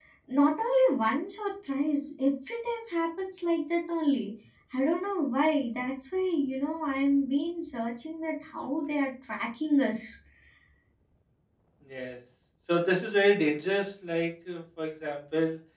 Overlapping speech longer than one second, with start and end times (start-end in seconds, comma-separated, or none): none